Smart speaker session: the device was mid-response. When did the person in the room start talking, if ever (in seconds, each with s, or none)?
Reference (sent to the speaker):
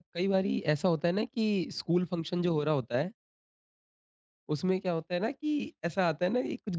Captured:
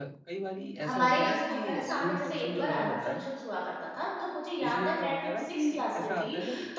0.8 s